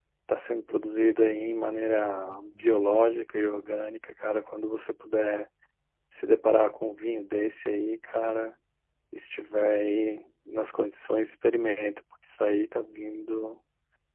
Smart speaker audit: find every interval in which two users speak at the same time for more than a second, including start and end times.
none

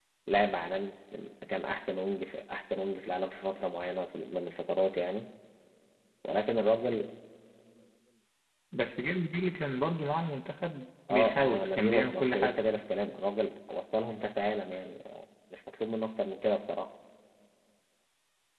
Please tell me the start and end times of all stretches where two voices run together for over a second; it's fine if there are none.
11.1-12.6

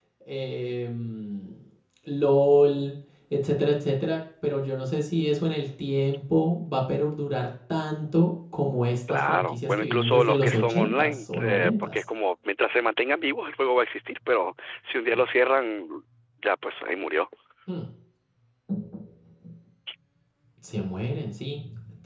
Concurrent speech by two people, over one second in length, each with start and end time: 9.1-12.0

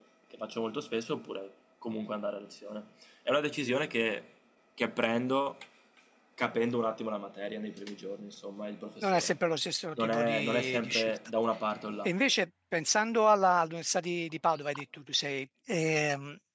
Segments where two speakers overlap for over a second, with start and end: 10.0-11.2

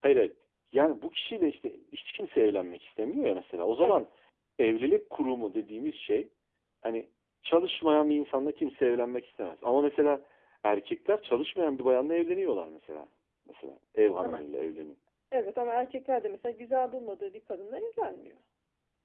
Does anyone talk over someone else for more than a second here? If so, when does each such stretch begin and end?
none

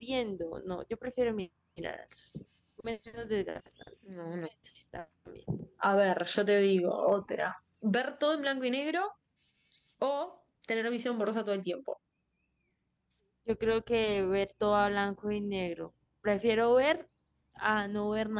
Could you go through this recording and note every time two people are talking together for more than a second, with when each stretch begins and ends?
none

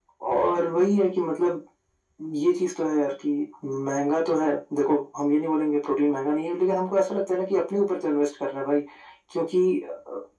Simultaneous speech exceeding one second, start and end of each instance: none

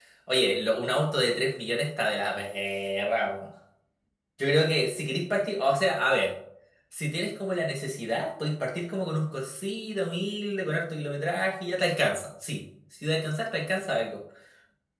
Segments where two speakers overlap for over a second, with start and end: none

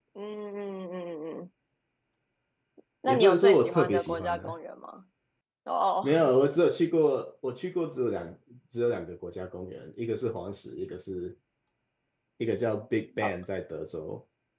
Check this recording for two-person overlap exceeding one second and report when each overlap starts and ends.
3.1-4.5

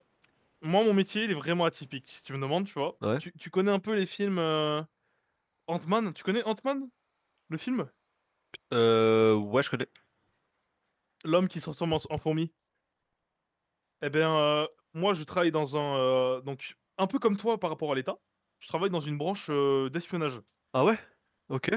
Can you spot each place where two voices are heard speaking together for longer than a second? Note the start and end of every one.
none

